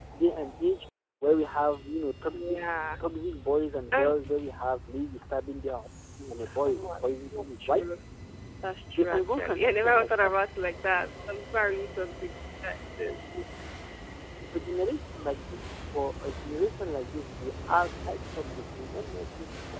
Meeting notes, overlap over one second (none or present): present